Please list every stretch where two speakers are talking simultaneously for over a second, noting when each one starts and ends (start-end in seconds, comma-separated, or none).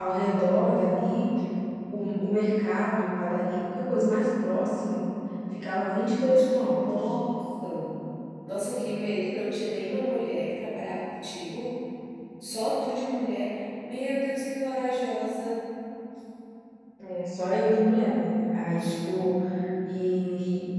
none